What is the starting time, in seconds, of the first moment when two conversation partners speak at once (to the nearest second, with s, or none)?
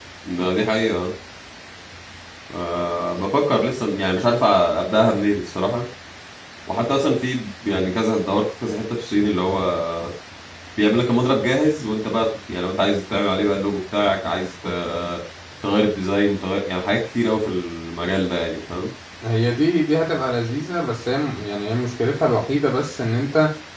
none